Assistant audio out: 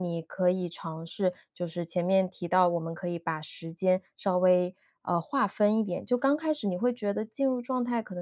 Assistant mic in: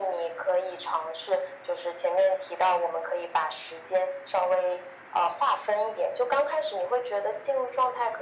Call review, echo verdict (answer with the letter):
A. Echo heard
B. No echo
A